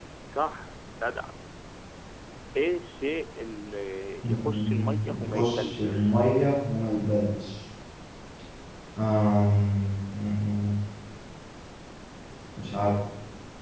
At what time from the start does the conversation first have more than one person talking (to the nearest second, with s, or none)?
4 s